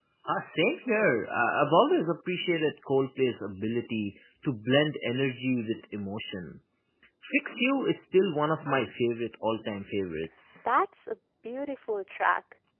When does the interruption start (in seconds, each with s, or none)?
none